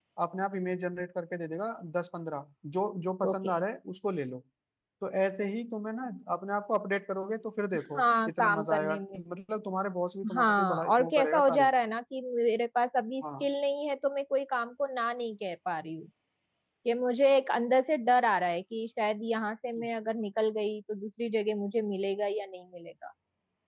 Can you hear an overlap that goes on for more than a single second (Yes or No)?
Yes